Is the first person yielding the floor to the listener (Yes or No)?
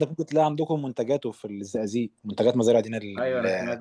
Yes